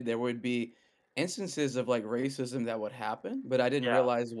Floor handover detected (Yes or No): No